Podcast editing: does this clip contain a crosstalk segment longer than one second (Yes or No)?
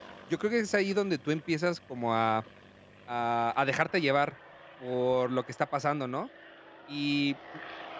No